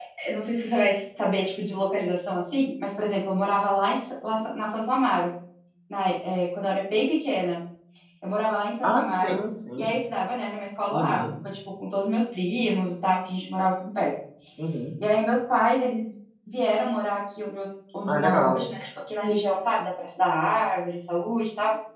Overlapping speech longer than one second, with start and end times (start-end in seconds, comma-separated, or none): none